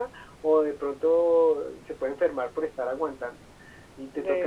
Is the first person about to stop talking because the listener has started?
No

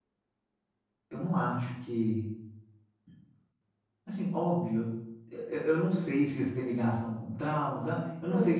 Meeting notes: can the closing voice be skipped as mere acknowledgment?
Yes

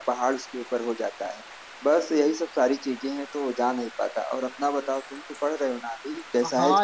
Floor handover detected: Yes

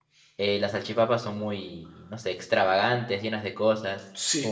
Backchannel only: No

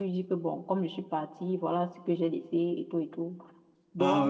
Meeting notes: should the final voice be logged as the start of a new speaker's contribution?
No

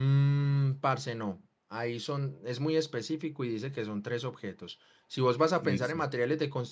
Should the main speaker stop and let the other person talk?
No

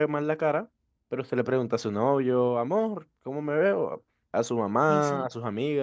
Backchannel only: Yes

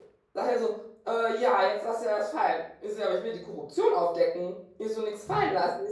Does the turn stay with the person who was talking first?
Yes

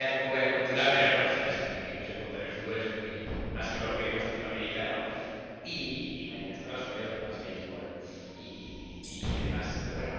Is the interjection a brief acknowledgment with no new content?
Yes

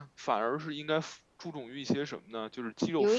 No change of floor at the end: Yes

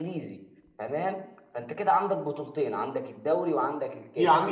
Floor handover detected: Yes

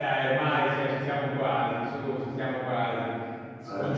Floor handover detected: No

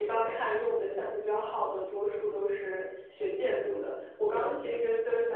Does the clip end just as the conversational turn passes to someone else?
No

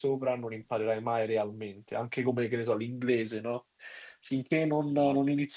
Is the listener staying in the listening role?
Yes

